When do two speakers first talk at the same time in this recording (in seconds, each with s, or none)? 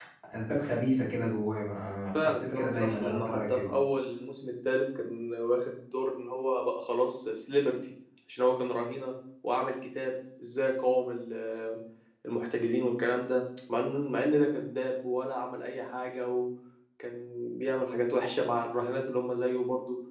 2.1 s